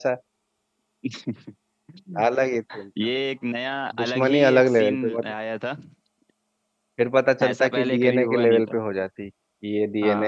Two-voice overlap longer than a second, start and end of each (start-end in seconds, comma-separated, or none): 4.0-5.3, 7.5-8.8